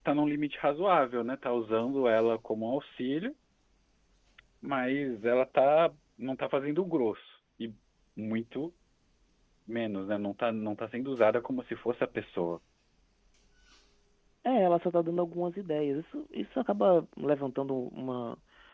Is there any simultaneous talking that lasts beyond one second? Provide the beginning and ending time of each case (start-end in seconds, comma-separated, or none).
none